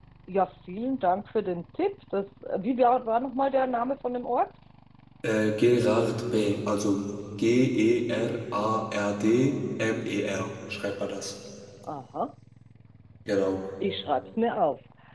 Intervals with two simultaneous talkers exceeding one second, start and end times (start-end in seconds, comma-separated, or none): none